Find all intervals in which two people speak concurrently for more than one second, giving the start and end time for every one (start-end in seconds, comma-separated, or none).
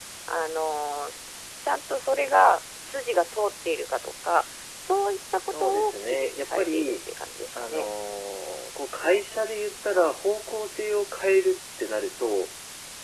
5.6-6.9